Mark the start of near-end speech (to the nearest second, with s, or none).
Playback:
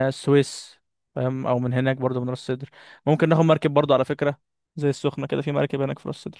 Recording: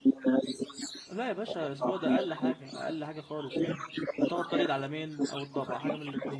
1 s